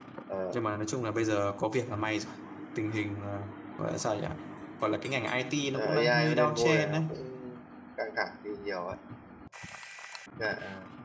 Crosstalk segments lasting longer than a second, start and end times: 5.8-7.0

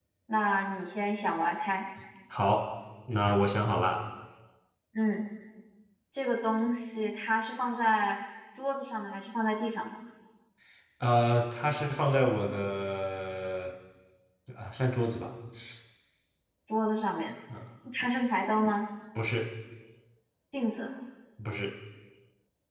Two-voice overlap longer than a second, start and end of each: none

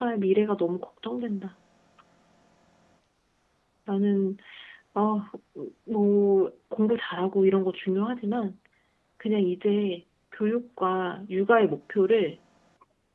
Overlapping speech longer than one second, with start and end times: none

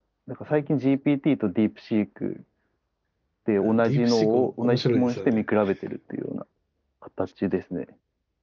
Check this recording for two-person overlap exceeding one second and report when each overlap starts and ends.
3.6-5.4

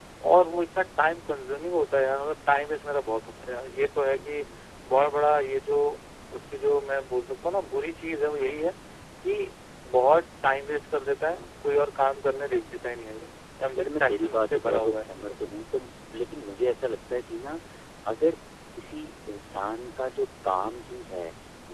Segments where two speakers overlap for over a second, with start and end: 13.8-15.3

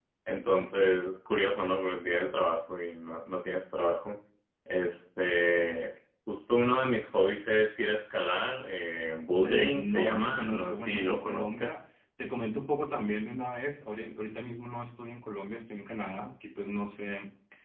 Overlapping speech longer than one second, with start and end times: 9.4-11.7

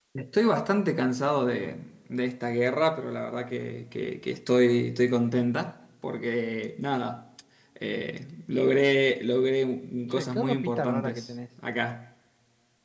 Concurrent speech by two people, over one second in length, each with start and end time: 10.1-11.3

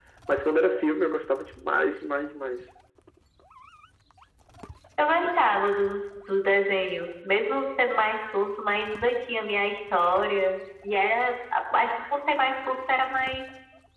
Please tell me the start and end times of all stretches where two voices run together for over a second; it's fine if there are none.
none

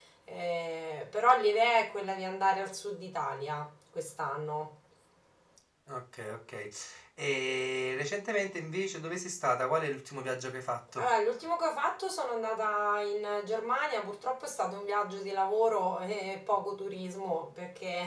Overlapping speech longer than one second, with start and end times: none

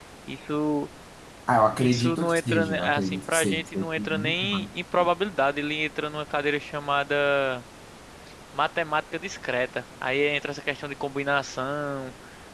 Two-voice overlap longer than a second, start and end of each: 1.8-4.7

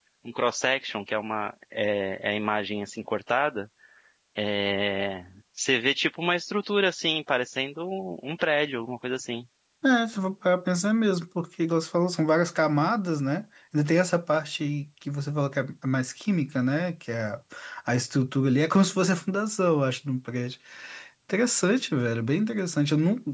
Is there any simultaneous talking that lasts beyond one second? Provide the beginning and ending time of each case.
none

